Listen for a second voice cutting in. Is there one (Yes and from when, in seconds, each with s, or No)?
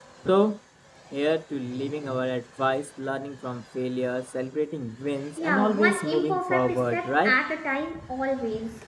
Yes, from 5.4 s